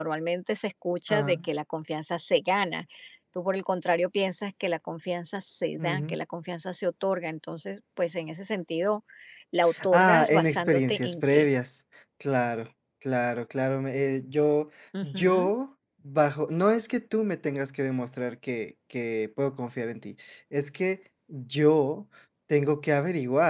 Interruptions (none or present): present